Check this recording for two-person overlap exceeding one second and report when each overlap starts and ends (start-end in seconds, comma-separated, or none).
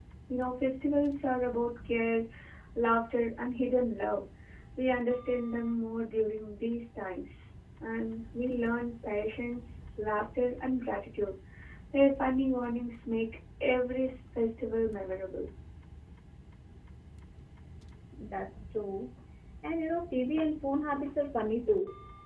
none